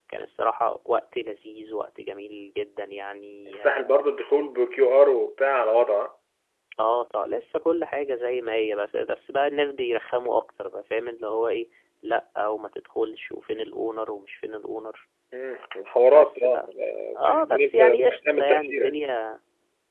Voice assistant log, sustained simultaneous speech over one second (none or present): present